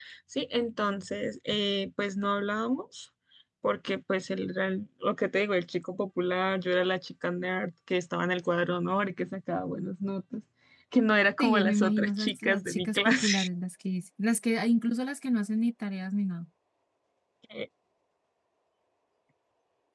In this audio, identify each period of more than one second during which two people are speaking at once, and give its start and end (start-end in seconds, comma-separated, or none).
11.4-13.5